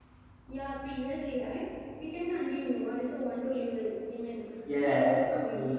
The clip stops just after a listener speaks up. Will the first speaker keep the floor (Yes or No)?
No